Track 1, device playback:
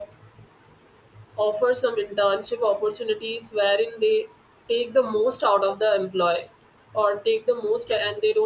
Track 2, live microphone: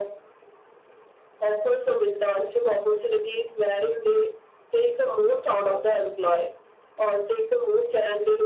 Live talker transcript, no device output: none

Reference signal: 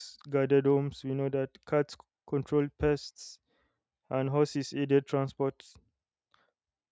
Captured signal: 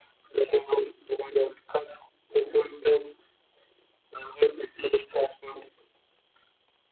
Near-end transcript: none

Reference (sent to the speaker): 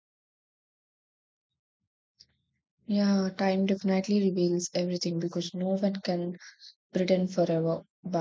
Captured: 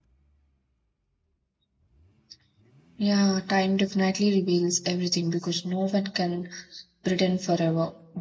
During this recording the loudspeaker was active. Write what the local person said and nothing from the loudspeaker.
none

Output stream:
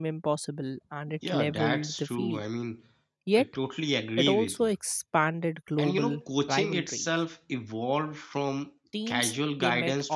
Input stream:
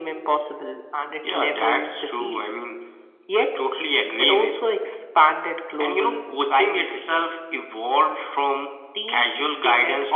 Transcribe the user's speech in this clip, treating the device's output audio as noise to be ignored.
none

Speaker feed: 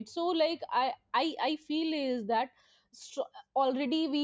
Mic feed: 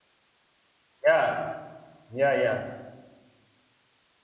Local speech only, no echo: Yeah, yeah, yeah,

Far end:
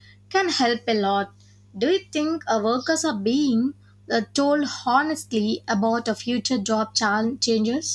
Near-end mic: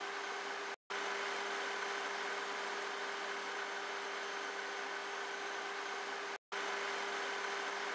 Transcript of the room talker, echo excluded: none

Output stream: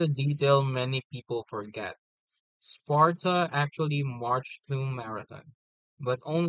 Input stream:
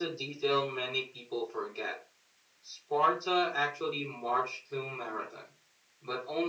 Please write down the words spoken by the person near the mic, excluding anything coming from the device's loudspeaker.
none

